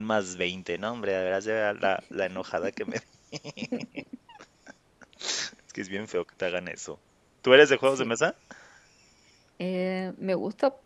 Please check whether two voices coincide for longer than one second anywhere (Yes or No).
No